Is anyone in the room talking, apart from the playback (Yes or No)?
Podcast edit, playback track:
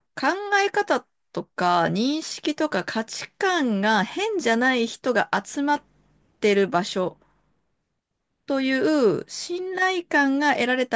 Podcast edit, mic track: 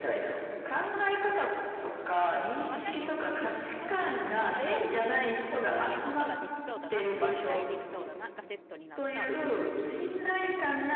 Yes